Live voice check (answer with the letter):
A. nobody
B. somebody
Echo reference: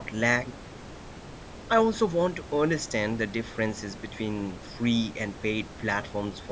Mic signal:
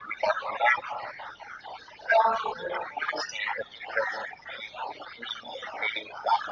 A